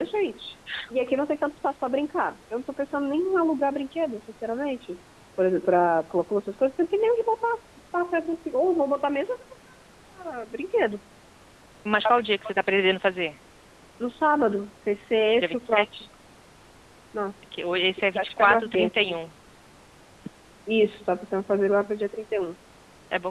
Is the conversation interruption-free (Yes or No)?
No